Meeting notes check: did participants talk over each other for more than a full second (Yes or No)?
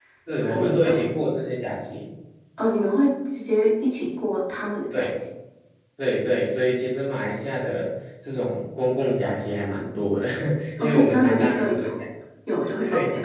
Yes